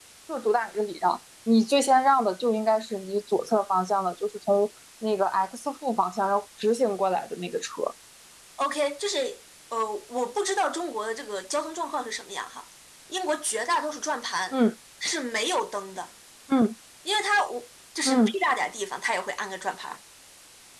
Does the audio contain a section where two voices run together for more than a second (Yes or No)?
No